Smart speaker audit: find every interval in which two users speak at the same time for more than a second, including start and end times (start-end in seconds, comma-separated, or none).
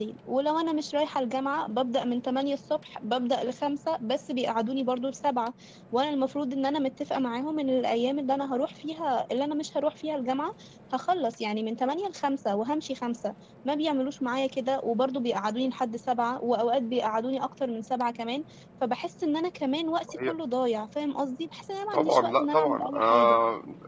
21.9-23.4